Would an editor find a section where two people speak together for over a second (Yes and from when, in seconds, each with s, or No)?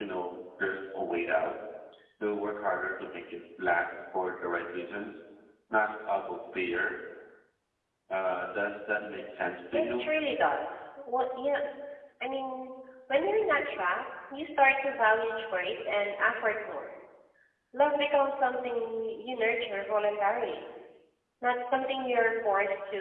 No